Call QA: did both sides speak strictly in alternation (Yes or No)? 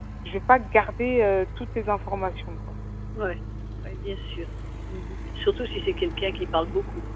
Yes